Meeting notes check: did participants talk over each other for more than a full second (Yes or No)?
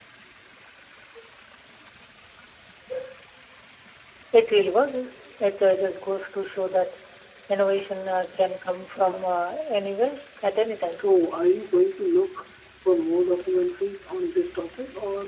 No